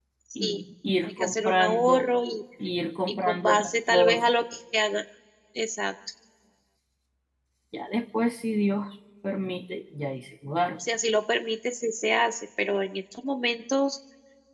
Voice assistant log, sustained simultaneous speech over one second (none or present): present